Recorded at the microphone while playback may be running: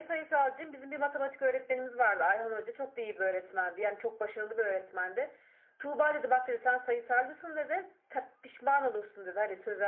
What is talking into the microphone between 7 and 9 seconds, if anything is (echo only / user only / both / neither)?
echo only